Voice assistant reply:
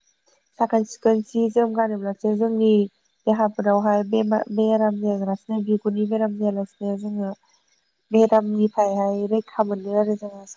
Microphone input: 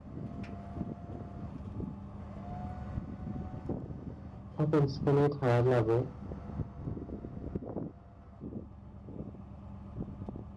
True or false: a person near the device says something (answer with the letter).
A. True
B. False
A